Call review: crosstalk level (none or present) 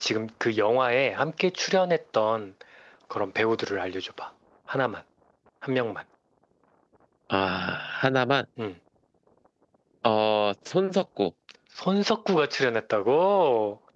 none